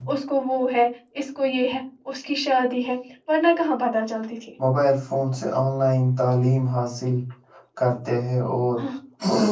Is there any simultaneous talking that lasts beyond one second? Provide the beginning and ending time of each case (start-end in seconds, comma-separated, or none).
none